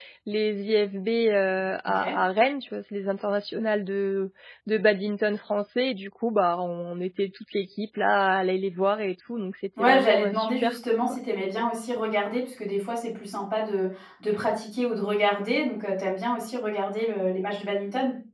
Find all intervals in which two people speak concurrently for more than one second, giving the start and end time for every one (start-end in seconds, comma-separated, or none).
9.8-11.0